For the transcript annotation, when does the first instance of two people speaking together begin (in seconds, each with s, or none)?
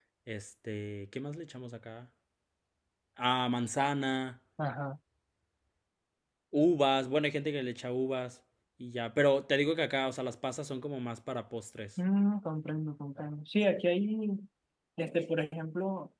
none